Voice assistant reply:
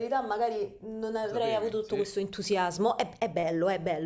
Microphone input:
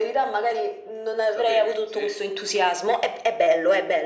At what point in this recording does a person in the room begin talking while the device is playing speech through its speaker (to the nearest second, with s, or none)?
none